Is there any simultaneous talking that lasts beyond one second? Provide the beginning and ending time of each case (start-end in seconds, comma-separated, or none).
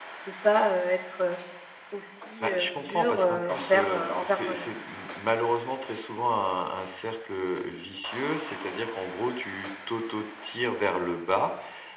2.4-4.7